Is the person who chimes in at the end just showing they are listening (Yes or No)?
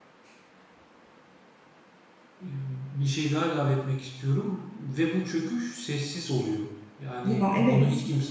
Yes